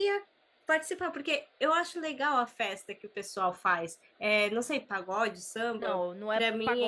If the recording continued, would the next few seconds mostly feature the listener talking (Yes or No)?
Yes